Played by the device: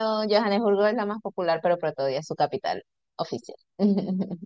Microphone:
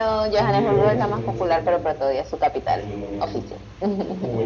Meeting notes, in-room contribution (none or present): present